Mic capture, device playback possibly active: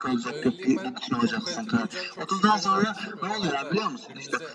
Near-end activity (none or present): present